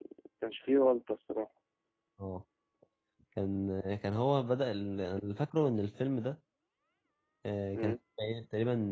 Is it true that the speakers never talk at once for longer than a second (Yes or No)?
Yes